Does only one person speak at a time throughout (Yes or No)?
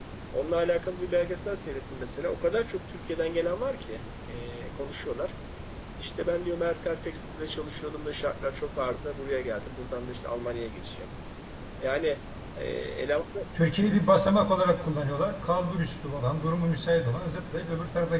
Yes